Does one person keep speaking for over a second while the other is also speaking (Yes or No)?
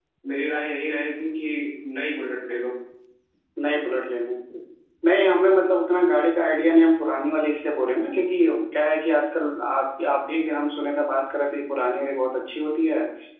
No